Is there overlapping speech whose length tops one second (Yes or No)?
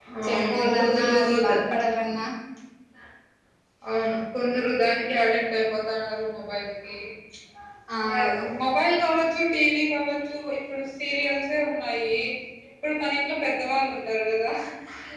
Yes